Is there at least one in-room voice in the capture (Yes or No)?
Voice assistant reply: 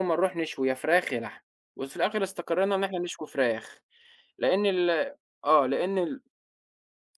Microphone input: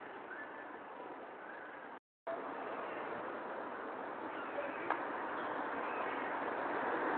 No